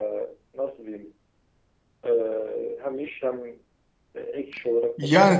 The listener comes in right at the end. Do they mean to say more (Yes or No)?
Yes